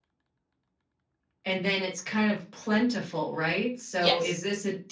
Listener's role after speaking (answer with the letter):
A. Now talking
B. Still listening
B